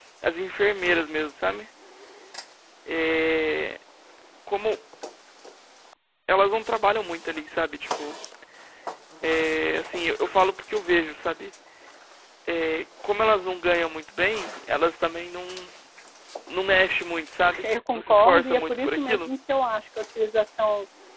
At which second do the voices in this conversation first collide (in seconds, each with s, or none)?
17.6 s